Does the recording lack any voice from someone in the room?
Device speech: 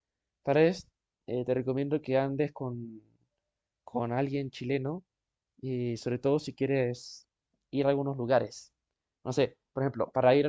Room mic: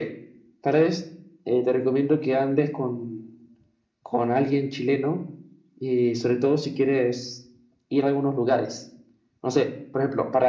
Yes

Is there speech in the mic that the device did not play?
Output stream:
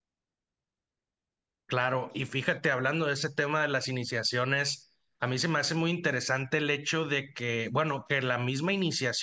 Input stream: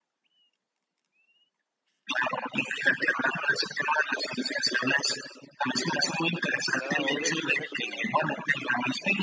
Yes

